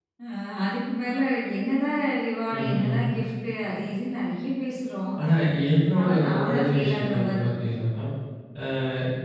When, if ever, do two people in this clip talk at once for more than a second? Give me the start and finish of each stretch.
6.0-7.7

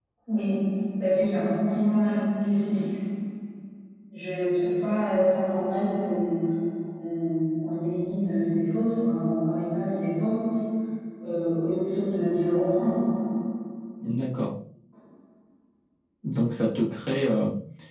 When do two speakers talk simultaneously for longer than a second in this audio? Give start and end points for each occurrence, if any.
none

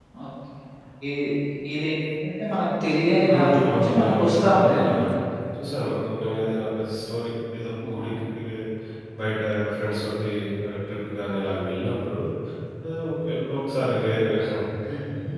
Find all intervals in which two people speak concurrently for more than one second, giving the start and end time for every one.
3.3-5.0

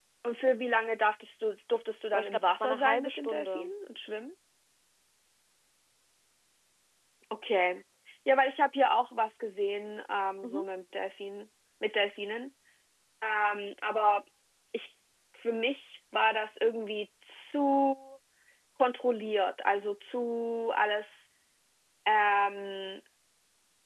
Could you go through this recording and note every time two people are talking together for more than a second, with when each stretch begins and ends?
2.1-3.7

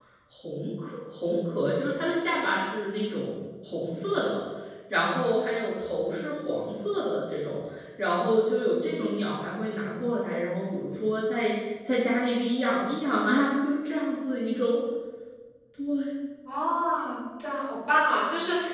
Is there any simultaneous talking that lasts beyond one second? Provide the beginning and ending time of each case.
none

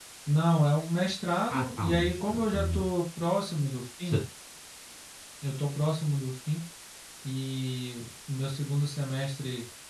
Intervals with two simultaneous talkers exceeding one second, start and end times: 1.5-2.9

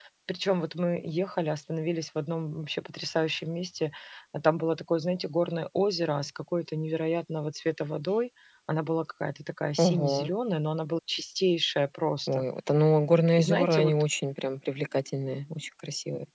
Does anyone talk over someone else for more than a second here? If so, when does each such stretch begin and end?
none

